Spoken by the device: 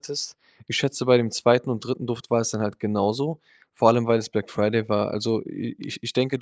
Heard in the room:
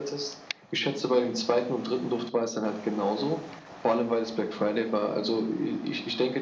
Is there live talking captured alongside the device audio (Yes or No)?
No